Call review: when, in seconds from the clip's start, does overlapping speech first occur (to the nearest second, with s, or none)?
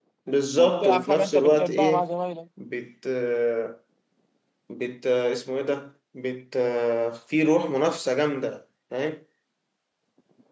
1 s